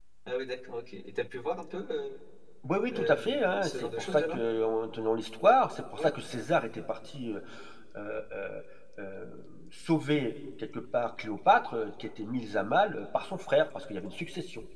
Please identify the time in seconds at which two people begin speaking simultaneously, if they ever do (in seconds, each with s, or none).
2.9 s